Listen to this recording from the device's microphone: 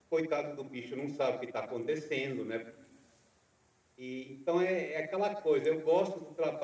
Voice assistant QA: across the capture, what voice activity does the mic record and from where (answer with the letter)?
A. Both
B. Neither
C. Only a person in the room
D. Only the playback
D